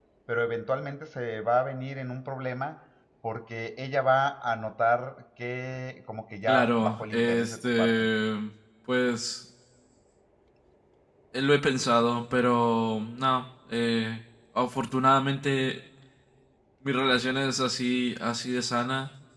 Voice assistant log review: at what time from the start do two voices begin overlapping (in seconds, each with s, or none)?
6.5 s